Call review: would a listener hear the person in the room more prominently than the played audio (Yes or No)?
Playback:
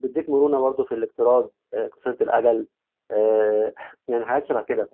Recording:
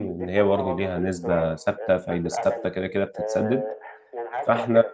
Yes